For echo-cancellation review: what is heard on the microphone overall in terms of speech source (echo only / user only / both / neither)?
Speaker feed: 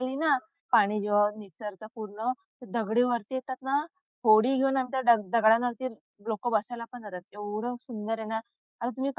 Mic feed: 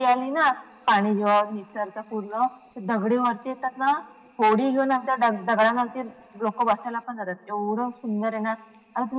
echo only